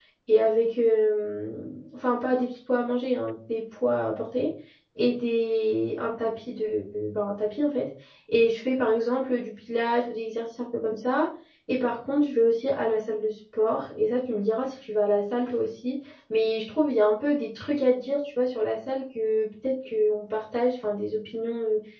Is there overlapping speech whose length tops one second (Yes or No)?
No